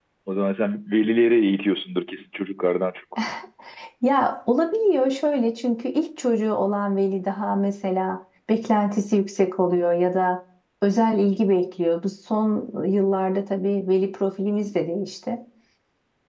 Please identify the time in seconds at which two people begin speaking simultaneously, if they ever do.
none

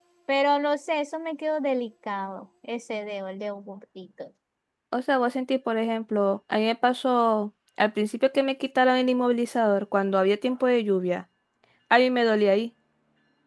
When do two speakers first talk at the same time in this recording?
none

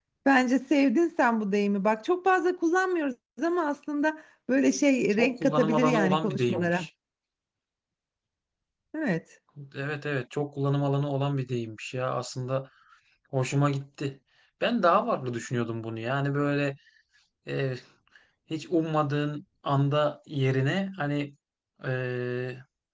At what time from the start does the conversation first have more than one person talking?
5.1 s

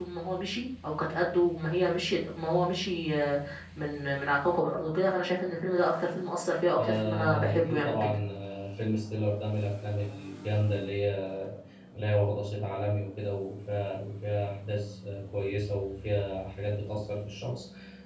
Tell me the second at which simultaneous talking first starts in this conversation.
6.8 s

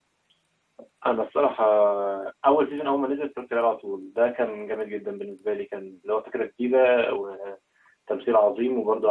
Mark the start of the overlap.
none

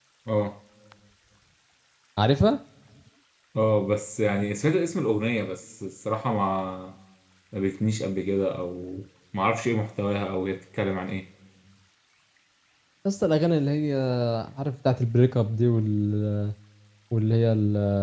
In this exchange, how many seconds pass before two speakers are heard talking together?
none

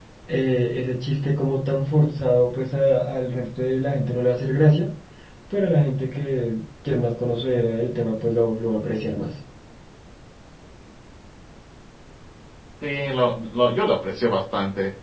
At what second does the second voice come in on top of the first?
none

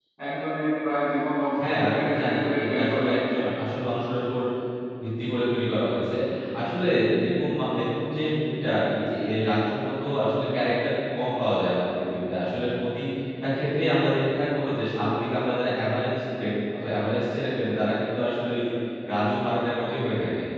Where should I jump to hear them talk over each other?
1.6 s

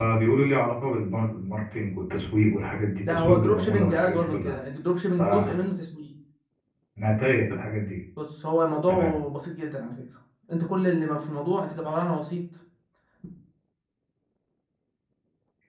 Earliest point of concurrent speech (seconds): 3.1 s

